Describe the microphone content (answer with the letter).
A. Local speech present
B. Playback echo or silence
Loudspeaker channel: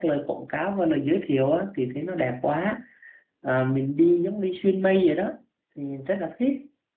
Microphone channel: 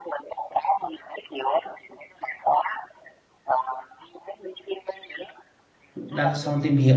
A